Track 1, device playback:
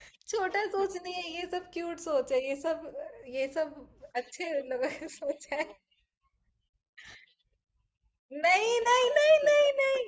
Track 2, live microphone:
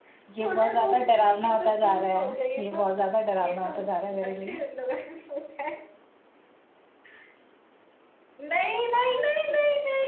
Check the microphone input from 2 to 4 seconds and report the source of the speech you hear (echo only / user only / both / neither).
both